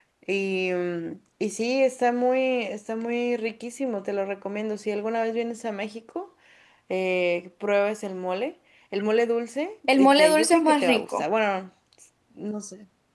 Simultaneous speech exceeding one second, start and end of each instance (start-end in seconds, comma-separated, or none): 10.0-11.2